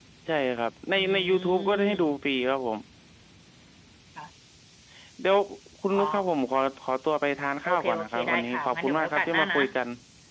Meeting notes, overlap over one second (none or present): present